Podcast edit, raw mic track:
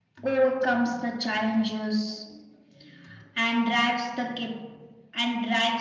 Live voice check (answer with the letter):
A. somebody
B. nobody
B